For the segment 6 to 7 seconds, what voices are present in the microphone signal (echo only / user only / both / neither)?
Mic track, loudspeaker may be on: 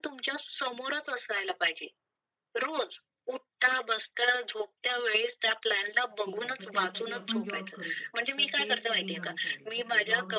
both